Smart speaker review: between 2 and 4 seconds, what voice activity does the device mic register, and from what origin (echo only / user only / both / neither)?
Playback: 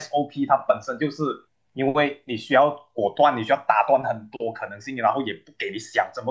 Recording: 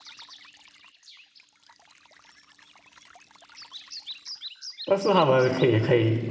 neither